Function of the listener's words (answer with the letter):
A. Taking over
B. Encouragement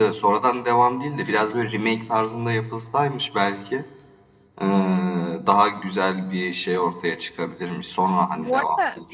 A